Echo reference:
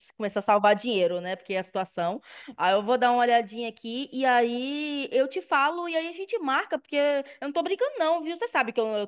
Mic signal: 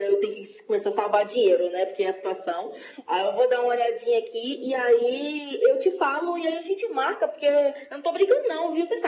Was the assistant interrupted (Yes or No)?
No